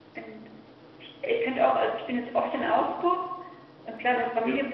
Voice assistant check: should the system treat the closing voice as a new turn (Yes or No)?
No